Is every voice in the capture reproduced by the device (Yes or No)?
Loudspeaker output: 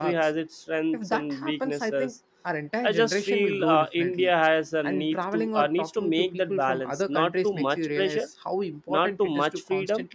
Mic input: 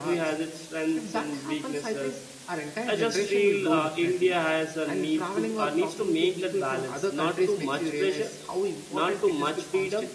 Yes